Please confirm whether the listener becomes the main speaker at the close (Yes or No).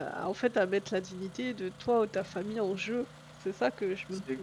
Yes